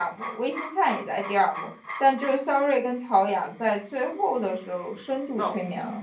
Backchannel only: No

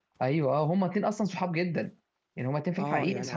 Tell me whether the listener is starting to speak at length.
Yes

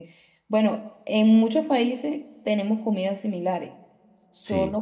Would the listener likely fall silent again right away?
Yes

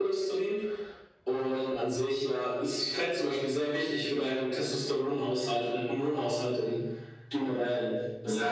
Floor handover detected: Yes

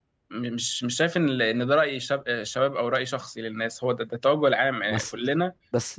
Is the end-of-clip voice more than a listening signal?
Yes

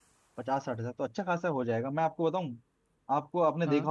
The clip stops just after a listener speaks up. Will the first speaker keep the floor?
Yes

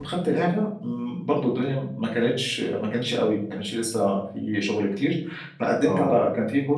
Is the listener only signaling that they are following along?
Yes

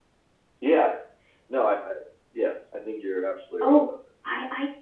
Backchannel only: No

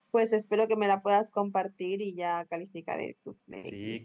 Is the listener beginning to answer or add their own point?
Yes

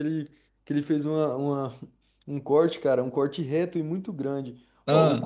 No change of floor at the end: Yes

